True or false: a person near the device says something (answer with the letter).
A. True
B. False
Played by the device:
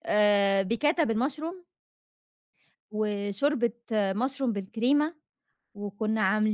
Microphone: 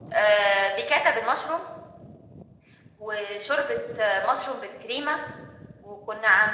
B